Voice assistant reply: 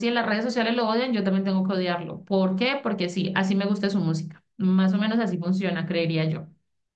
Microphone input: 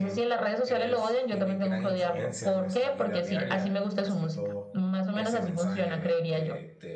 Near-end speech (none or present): present